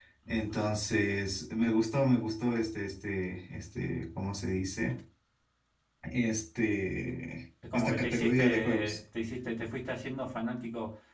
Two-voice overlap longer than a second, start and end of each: 7.7-9.0

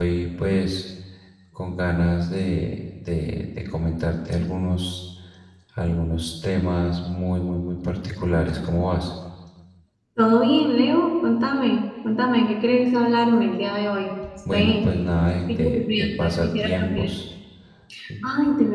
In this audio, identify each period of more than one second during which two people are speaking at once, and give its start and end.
15.5-17.1

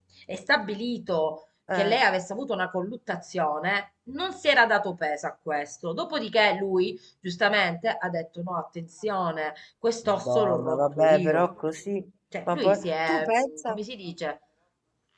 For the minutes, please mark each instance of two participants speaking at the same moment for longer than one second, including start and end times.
10.0-11.5, 12.5-13.8

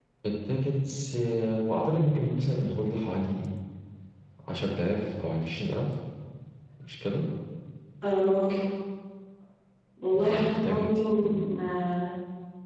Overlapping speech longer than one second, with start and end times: 10.1-11.4

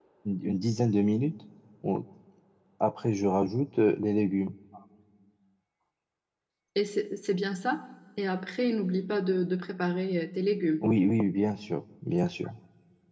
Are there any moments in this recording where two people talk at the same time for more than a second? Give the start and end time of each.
none

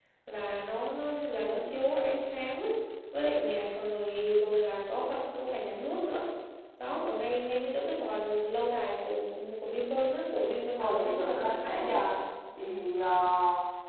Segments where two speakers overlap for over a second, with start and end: 10.8-12.0

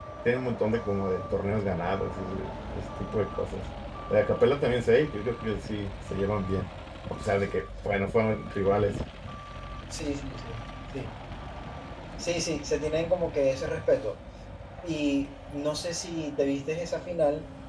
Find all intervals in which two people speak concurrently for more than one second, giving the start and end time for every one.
none

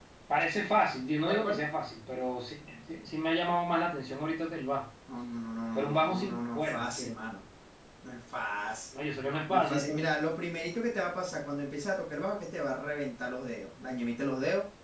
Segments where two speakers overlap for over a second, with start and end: 5.7-7.2

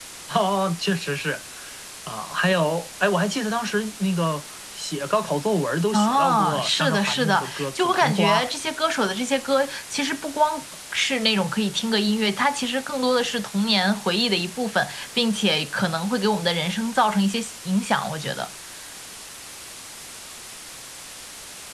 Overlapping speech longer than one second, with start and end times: 5.9-8.4

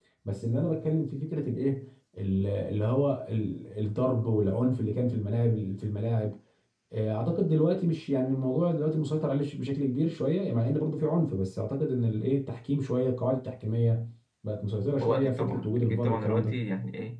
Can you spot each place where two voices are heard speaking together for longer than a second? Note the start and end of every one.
15.0-16.6

